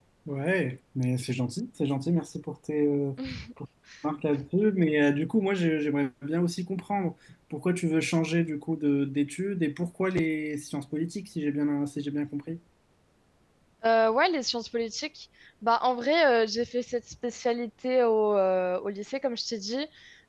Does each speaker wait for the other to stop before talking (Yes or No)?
Yes